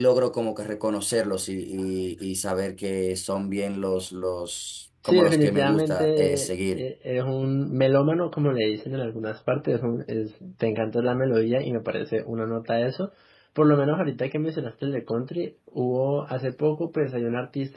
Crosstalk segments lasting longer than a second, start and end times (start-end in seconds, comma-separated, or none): 5.0-6.8